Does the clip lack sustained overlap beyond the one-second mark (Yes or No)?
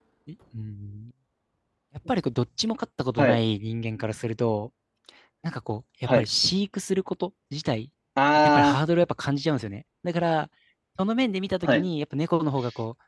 Yes